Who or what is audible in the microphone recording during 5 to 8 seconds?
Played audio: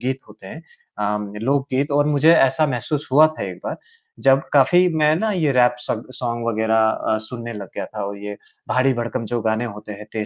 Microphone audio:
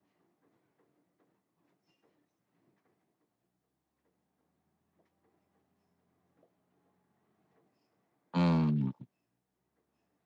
neither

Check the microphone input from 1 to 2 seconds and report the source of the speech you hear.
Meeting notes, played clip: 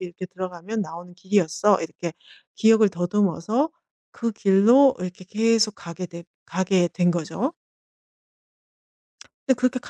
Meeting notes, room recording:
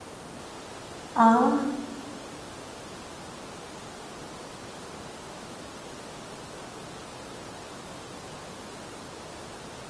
user only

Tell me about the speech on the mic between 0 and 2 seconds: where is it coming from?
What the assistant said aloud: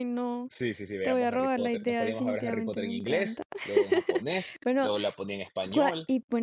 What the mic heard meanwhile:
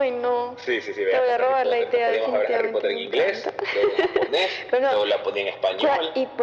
echo only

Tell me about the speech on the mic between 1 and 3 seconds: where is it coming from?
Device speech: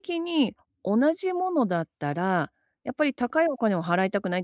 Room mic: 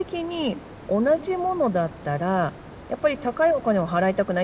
echo only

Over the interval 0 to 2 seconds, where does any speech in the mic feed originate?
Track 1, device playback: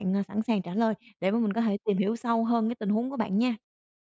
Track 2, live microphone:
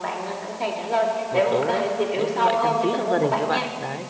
both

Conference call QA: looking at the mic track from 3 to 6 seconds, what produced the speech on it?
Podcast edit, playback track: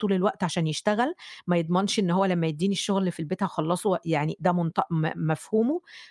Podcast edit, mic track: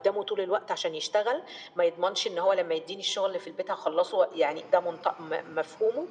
echo only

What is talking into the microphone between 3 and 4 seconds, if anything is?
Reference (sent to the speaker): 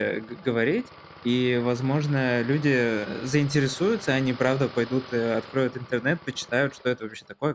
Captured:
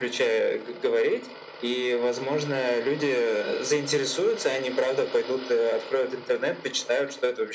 echo only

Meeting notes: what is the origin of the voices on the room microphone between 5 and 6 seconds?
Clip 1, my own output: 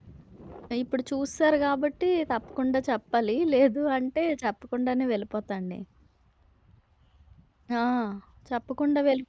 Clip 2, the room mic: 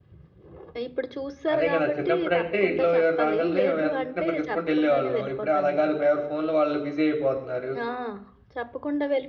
both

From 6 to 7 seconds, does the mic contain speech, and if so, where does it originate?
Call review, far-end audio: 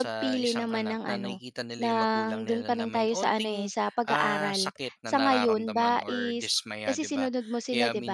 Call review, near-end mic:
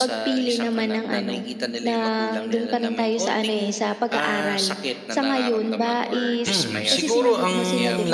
both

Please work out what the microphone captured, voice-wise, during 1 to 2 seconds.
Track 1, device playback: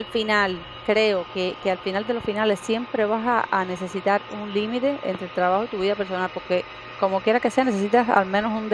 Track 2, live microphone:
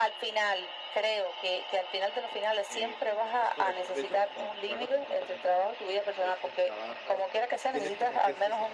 echo only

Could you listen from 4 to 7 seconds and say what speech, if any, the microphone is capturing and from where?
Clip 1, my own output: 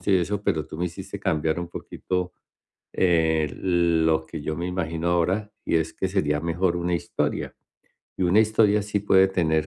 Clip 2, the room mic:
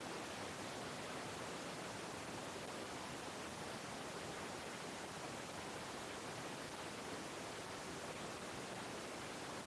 neither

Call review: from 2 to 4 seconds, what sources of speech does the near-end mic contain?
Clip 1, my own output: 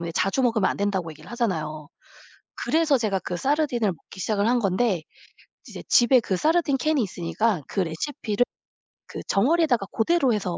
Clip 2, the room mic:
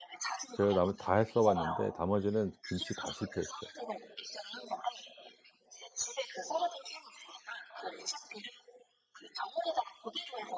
both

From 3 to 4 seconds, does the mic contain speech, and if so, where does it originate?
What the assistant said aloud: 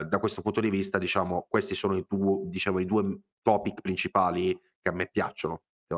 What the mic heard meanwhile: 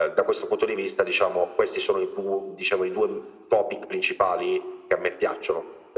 echo only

